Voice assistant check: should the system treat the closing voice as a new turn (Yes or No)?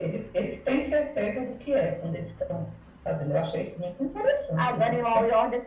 Yes